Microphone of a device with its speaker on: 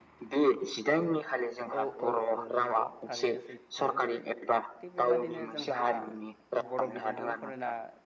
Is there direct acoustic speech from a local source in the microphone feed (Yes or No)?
Yes